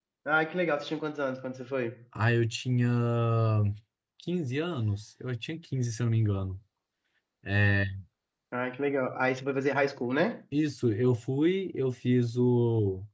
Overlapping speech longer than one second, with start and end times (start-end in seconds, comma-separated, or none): none